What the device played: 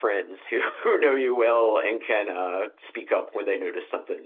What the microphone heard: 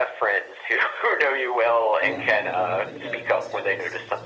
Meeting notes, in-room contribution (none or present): present